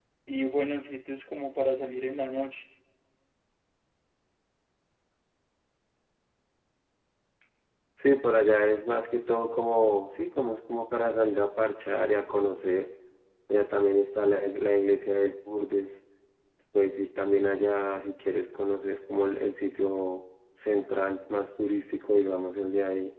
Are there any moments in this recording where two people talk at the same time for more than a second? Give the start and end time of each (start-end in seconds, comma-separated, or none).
none